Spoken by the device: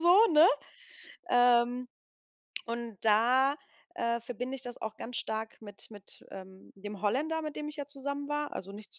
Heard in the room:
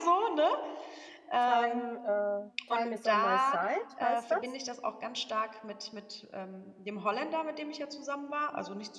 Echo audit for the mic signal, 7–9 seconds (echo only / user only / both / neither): echo only